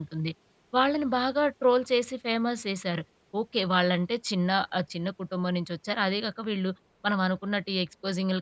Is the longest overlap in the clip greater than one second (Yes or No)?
No